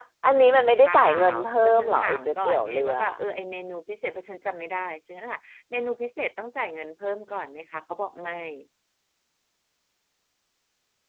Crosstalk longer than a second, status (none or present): present